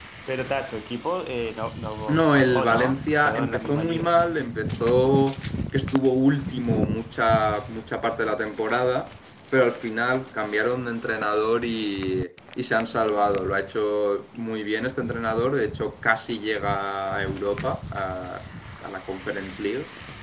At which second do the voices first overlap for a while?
2 s

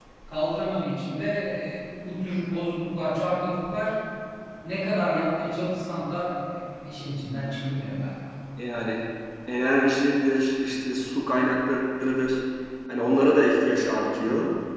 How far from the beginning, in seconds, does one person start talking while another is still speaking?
none

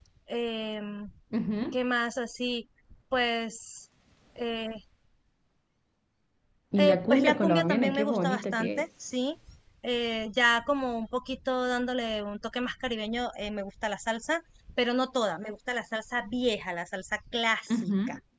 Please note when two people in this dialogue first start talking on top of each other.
7 s

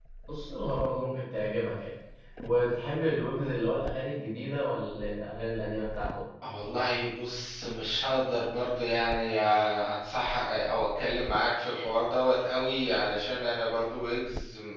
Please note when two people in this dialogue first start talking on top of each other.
none

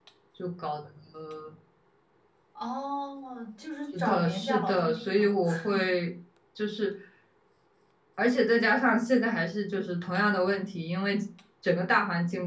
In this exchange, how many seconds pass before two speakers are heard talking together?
4 s

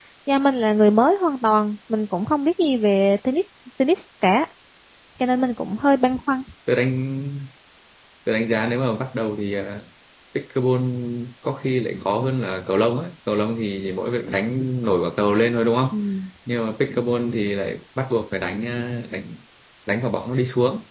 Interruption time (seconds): none

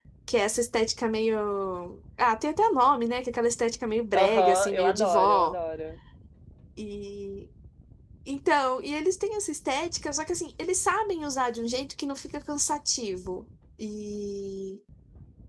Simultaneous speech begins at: 4 s

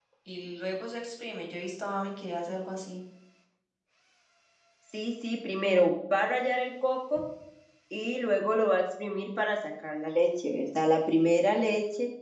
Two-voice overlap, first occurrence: none

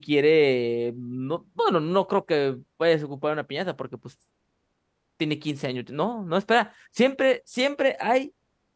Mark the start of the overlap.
none

